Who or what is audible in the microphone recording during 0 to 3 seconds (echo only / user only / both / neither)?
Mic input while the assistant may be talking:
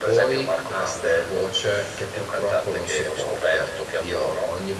both